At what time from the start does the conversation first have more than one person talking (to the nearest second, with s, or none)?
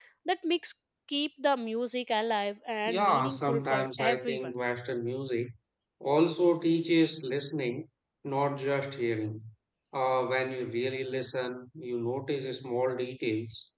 3 s